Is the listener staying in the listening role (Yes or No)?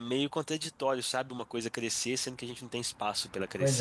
No